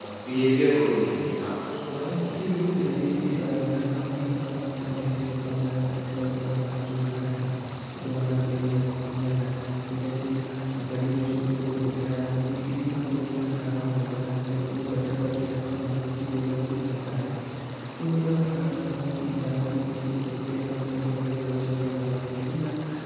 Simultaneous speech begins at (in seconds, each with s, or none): none